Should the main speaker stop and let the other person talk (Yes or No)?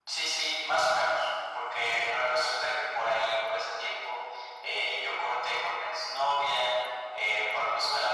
No